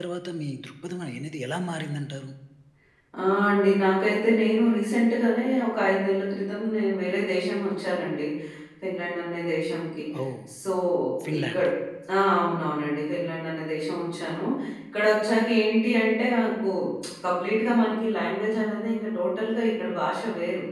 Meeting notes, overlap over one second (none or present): none